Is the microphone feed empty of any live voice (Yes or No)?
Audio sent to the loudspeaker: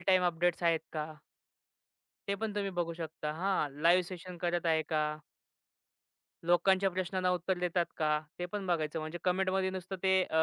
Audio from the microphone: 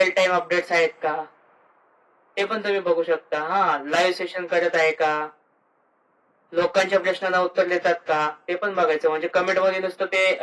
Yes